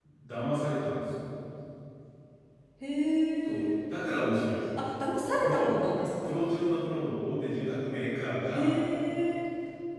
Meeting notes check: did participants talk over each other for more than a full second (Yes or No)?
No